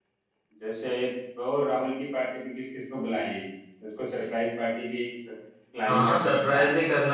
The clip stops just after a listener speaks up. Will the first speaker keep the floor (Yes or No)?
No